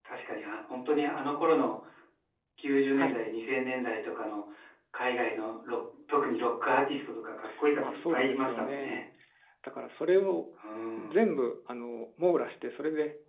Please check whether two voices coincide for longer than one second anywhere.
Yes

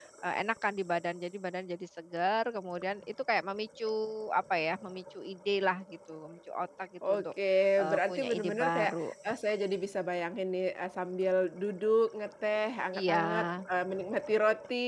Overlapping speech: Yes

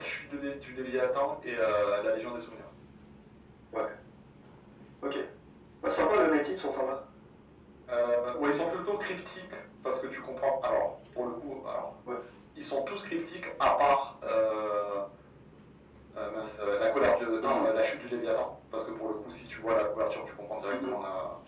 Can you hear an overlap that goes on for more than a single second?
No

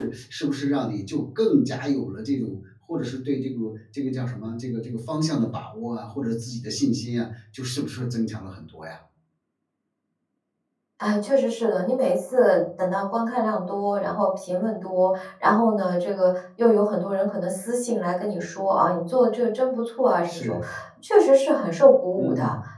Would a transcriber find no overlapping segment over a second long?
Yes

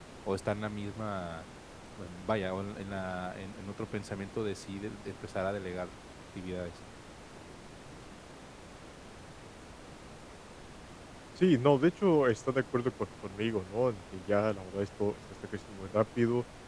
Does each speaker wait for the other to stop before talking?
Yes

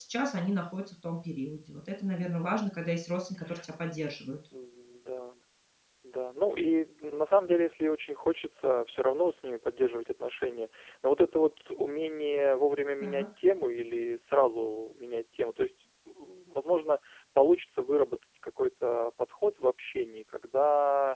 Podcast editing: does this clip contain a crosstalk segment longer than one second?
No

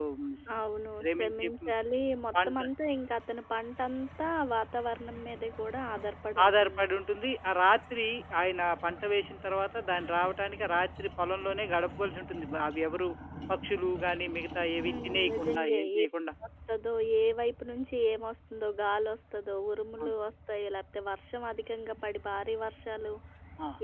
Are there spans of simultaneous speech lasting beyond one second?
Yes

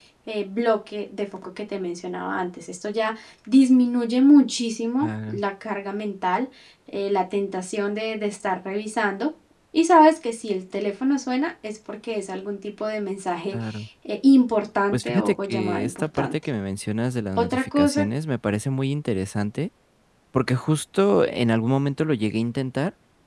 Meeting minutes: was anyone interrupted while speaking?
Yes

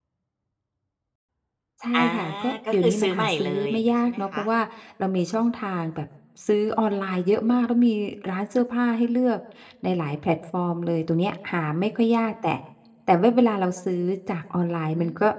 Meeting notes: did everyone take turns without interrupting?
No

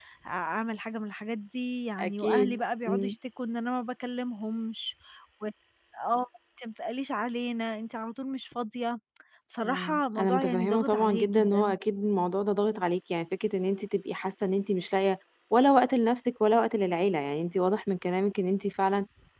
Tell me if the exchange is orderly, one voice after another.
No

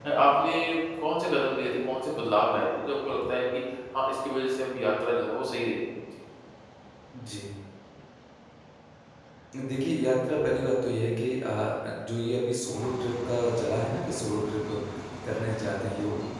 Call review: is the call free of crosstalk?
Yes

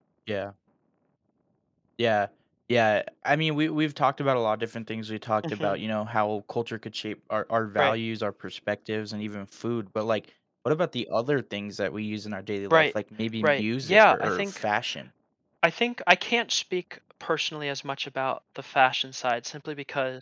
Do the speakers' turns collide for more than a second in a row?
Yes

